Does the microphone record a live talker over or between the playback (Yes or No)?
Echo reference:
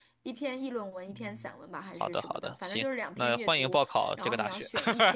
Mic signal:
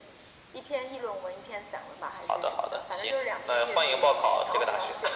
No